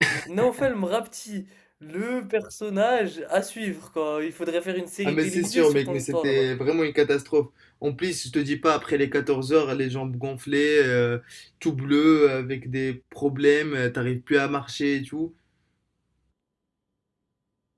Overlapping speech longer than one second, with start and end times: 5.0-6.5

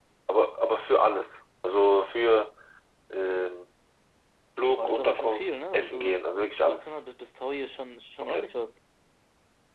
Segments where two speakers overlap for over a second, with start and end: 4.8-6.1

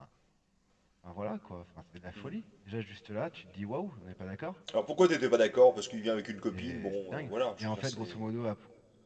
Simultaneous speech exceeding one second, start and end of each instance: 6.5-8.2

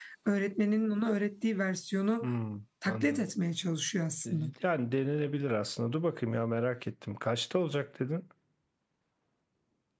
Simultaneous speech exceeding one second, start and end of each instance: none

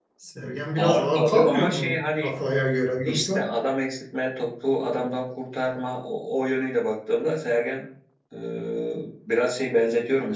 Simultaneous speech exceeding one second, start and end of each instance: 0.8-2.3

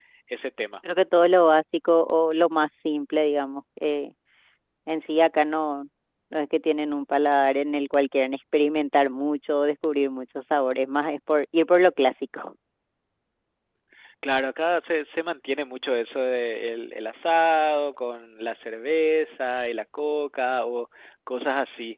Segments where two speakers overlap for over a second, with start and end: none

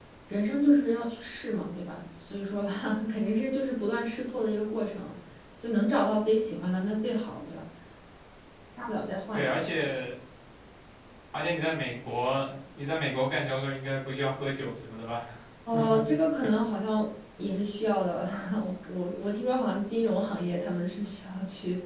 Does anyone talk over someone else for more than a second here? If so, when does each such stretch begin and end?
none

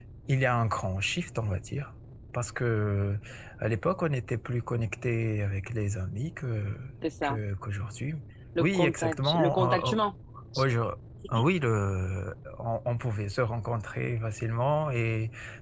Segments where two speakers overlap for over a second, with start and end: 8.6-9.9

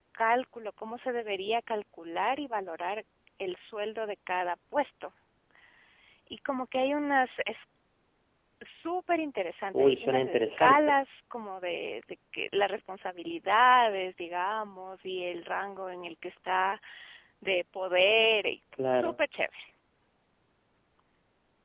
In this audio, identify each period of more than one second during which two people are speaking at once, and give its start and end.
9.7-11.0

